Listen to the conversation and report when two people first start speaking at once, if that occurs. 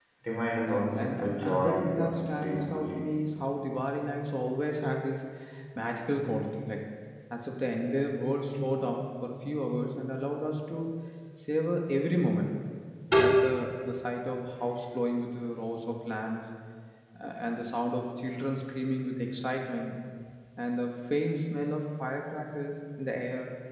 0.7 s

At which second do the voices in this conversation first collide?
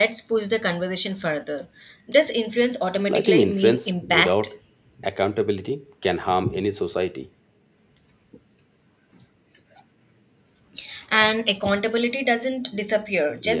3.1 s

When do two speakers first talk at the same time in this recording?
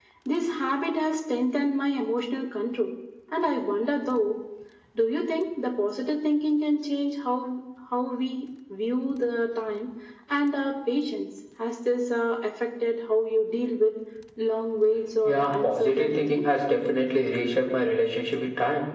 15.2 s

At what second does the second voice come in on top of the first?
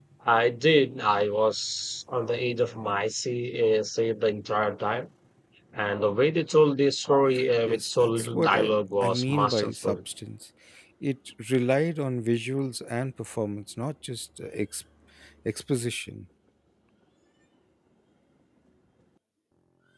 7.7 s

